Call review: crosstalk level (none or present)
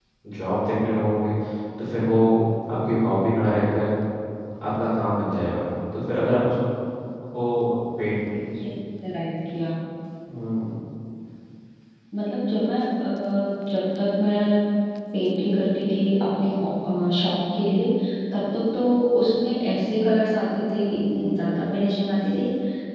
none